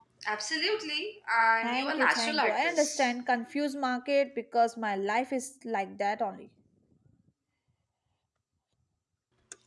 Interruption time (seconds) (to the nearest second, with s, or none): 2 s